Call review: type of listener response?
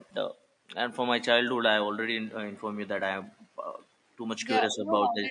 taking over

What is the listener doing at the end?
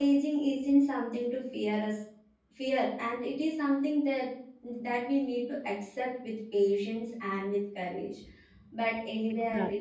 listening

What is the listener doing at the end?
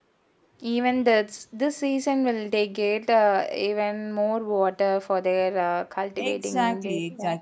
taking over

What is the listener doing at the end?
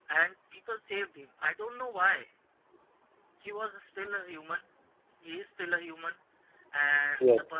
listening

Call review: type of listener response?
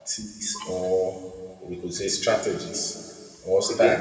listening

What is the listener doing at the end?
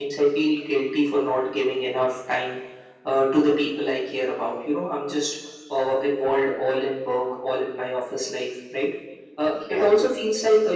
listening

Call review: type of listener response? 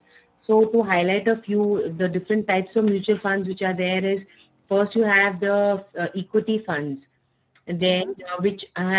listening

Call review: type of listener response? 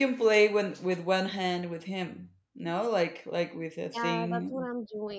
taking over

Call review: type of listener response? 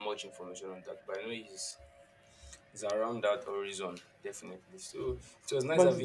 taking over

